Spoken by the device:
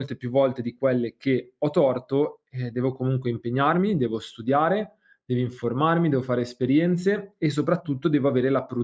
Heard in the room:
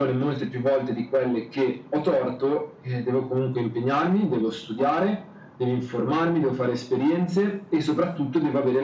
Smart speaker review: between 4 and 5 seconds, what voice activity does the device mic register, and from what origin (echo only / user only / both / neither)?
echo only